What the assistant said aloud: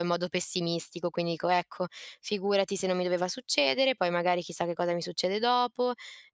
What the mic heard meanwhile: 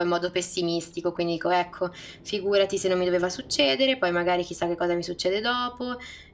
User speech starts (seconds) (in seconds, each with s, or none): none